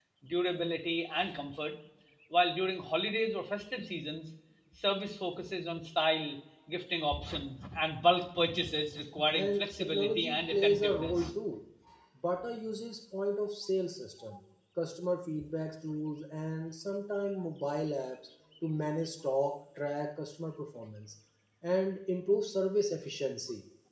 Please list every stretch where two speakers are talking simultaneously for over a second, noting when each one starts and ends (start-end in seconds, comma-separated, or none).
9.3-11.3